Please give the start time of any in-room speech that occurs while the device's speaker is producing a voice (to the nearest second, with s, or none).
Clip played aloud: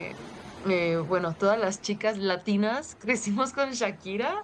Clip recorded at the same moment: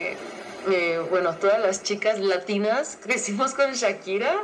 none